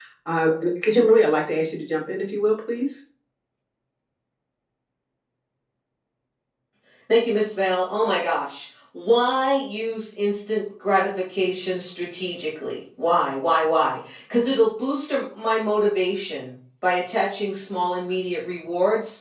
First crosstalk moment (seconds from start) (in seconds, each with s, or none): none